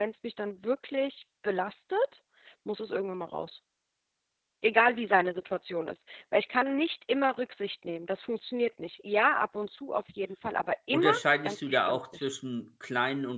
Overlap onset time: 10.9 s

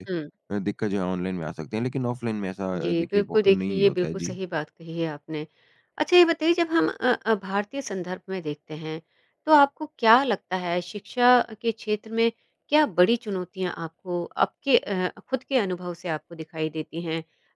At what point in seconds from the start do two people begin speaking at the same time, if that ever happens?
2.7 s

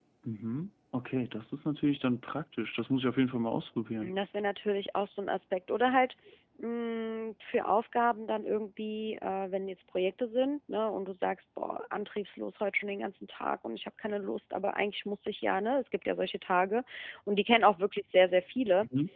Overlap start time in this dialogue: none

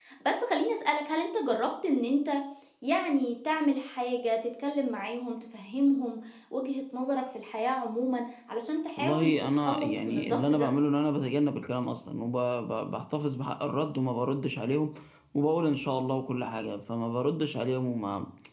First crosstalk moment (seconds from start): 9.0 s

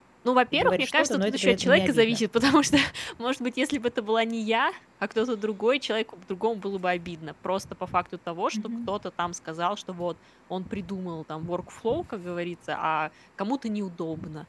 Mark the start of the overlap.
0.5 s

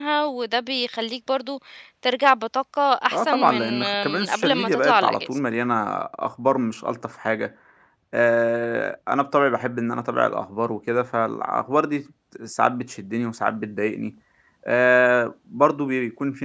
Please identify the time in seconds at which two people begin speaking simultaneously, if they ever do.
3.1 s

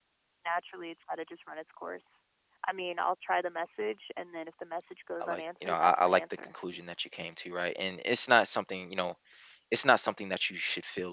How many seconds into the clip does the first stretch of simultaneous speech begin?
5.2 s

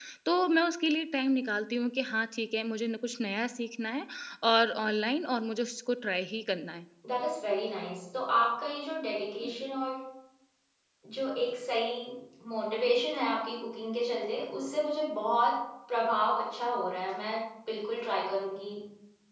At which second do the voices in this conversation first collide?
none

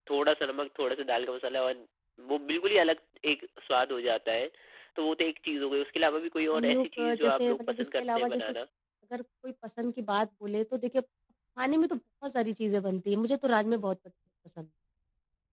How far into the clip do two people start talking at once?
6.5 s

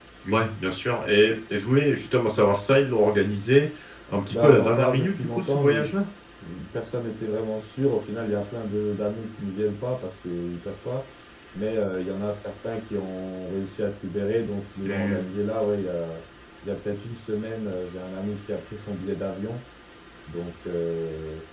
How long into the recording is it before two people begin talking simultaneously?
4.3 s

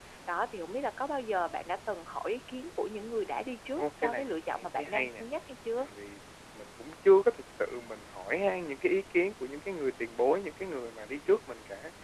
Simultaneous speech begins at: 3.7 s

